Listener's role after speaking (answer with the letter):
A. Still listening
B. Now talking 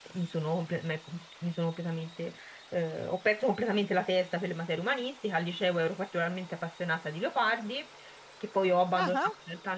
A